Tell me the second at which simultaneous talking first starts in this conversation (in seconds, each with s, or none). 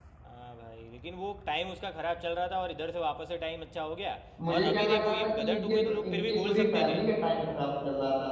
4.4 s